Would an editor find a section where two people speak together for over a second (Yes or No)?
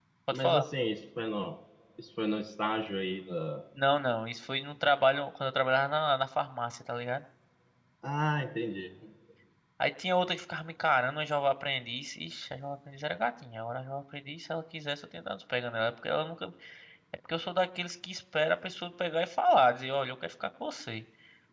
No